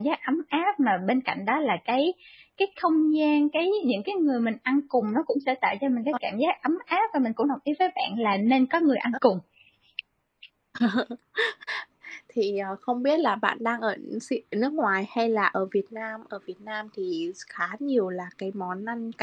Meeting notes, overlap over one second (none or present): none